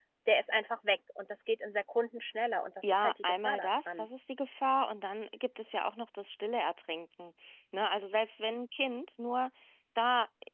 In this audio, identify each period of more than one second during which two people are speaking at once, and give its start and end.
2.8-4.0

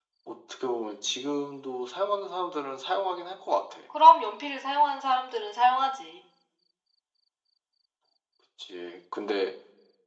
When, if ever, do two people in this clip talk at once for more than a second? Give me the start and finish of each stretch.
none

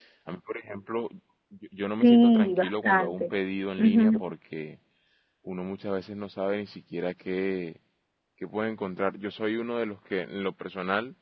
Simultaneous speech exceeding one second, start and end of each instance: 2.0-3.3

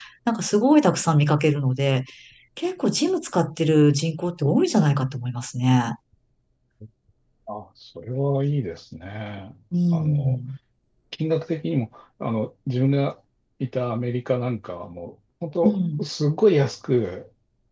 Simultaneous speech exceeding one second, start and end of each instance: none

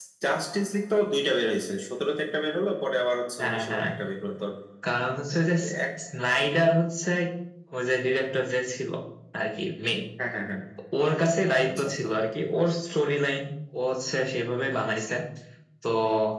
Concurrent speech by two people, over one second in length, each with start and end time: none

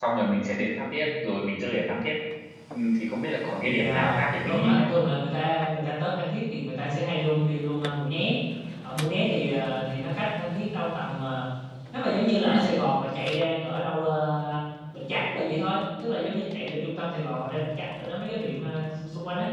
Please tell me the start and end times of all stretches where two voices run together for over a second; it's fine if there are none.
3.6-5.0

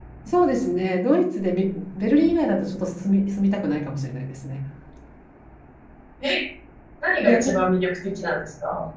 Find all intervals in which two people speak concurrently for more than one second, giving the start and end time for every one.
none

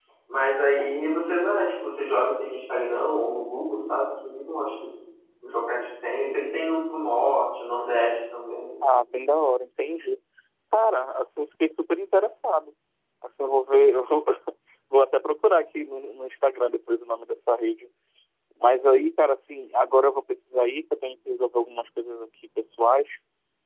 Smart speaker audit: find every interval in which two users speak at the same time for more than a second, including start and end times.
none

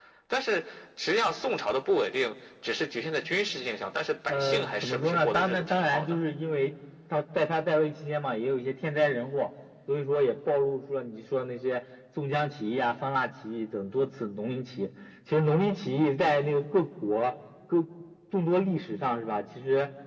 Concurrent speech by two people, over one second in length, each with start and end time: 4.3-6.2

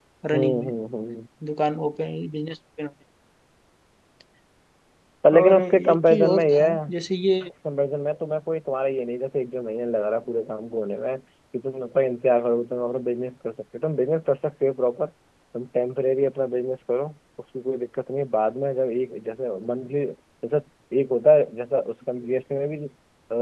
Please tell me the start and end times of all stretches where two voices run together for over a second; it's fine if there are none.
5.4-6.9

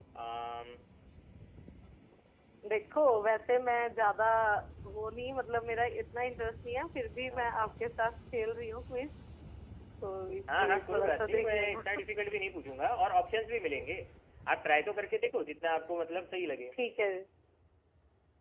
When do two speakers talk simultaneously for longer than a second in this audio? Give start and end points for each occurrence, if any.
10.6-11.8

